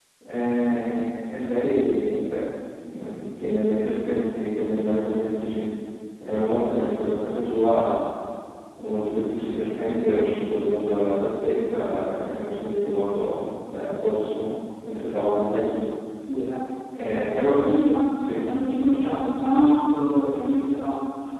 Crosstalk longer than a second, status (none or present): none